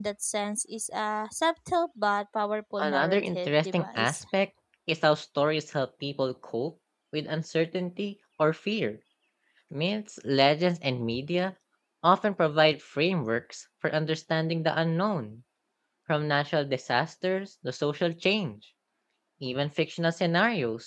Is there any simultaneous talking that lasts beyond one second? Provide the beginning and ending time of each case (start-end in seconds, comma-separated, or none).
2.8-4.2